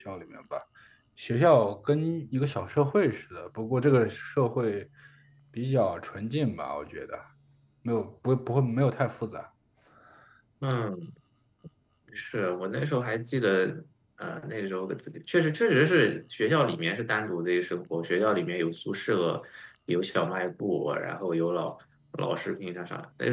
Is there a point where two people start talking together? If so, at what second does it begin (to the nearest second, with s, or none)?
none